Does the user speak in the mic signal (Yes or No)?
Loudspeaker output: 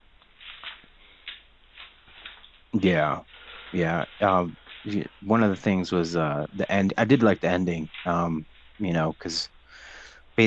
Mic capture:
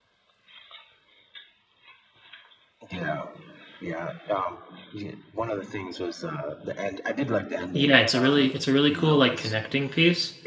Yes